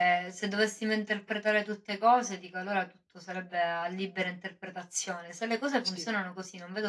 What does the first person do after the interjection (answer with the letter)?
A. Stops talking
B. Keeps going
B